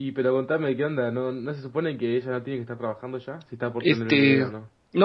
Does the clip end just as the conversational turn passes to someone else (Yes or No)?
Yes